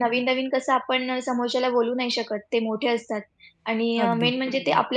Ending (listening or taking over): listening